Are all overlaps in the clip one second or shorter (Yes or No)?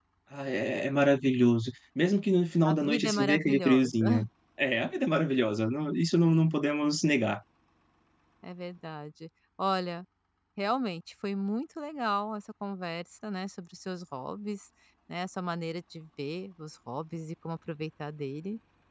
No